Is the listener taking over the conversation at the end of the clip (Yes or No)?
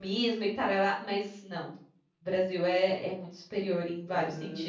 Yes